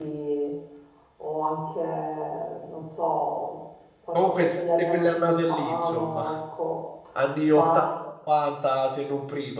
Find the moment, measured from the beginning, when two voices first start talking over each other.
4.1 s

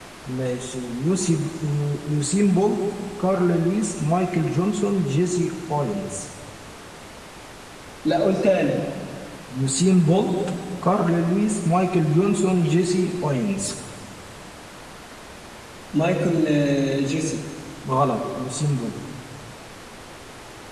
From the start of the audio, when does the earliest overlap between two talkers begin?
none

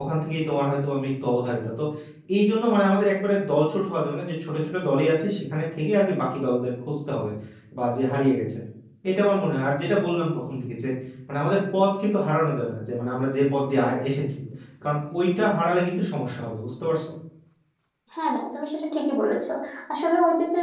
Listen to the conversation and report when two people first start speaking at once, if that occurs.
none

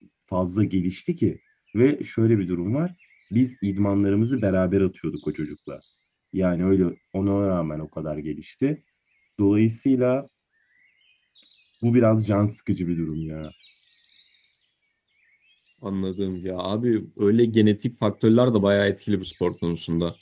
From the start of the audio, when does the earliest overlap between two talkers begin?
none

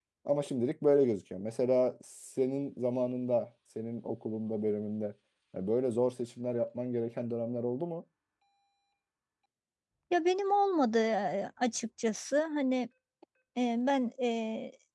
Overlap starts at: none

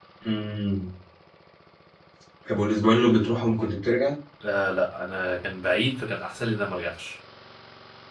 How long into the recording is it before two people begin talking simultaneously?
none

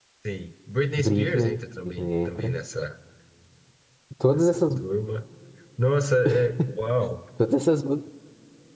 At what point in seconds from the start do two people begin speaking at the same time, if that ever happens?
1.0 s

